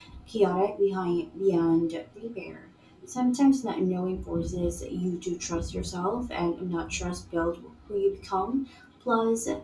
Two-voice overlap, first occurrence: none

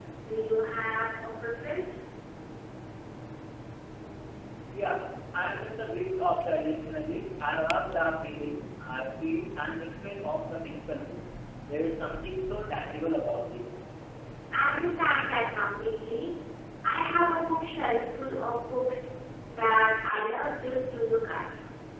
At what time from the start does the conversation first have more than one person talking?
none

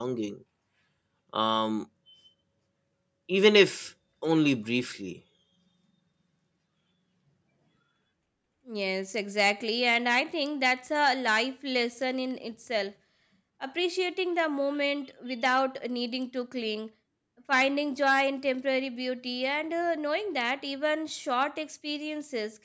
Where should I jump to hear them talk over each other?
none

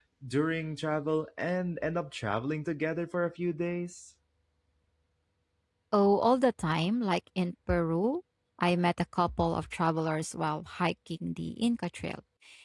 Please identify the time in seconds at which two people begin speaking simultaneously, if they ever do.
none

